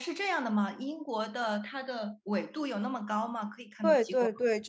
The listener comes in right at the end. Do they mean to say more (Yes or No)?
Yes